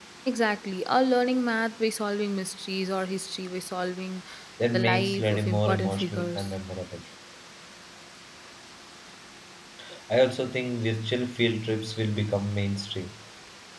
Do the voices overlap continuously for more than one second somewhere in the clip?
Yes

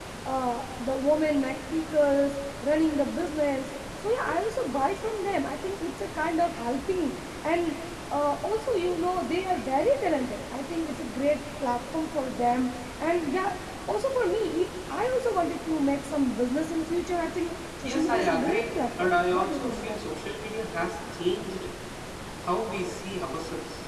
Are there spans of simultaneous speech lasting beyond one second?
Yes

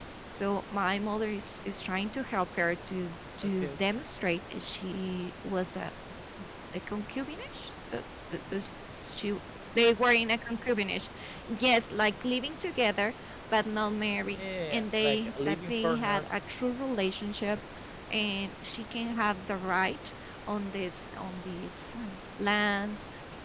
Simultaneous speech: Yes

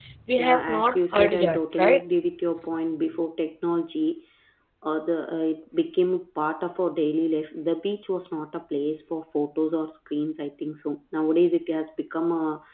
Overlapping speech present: Yes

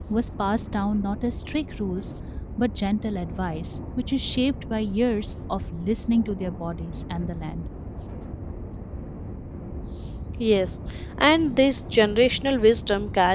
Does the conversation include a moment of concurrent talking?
No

